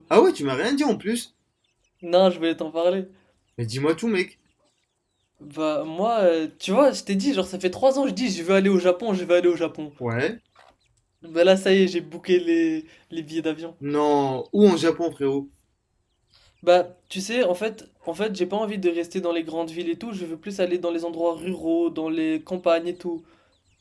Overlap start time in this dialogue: none

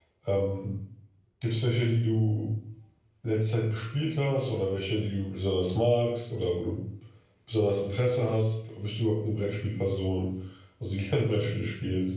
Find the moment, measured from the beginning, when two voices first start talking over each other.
none

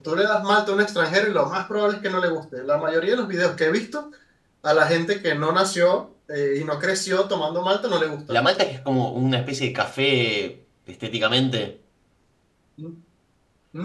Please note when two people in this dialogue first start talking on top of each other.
none

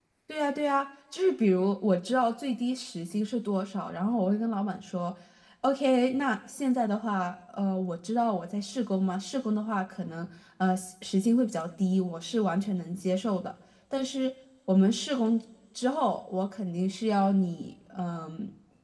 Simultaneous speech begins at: none

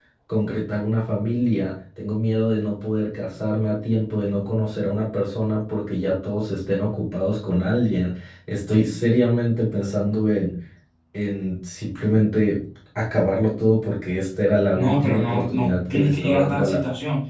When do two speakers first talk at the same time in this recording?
15 s

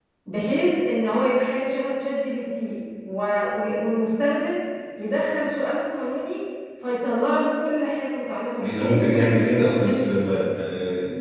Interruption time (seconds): 9 s

